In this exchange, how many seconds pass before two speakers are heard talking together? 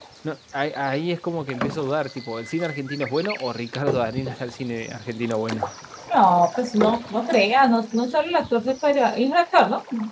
none

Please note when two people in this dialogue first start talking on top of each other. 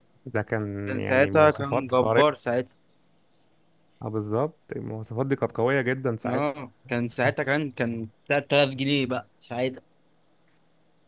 1 s

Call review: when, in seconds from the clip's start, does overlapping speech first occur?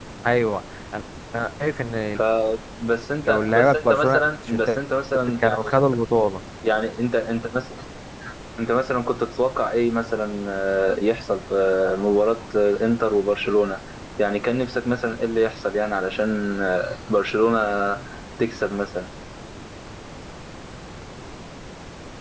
3 s

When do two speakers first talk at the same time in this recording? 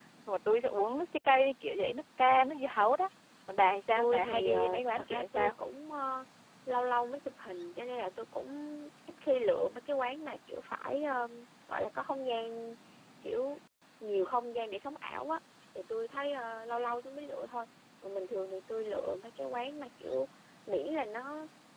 4 s

